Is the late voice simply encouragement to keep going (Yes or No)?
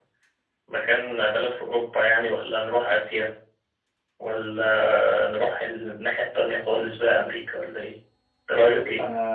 No